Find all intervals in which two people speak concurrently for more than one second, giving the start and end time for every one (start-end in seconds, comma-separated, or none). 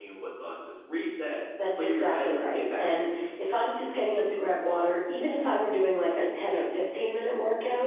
1.8-3.1